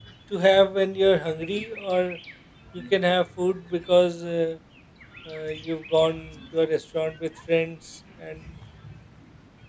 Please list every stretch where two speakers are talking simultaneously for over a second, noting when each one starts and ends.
none

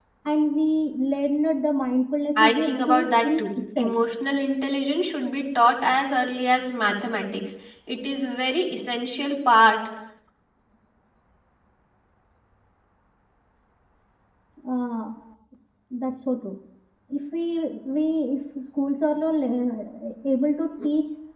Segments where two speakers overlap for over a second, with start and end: 2.4-3.9

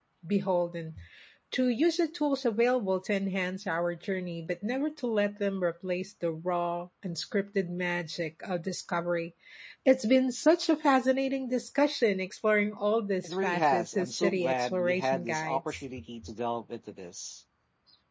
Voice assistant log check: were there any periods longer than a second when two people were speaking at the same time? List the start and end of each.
13.2-15.9

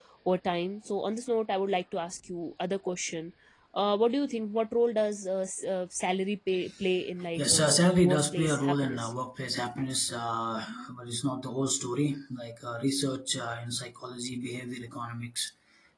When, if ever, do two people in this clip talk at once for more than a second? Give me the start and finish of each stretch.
7.4-9.1

